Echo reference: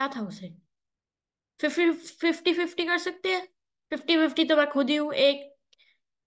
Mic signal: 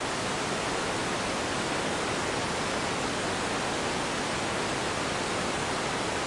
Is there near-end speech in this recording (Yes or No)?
No